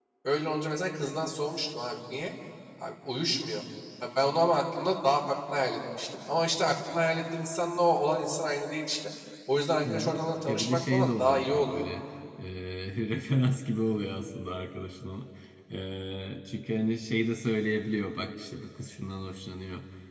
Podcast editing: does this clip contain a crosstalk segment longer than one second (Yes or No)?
Yes